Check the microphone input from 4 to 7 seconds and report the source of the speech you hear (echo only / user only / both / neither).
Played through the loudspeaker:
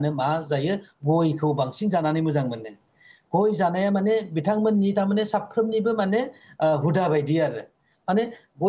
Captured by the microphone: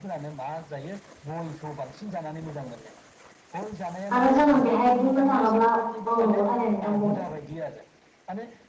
both